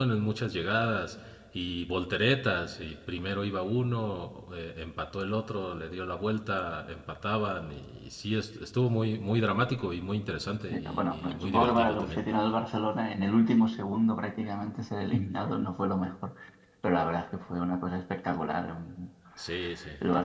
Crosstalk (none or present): present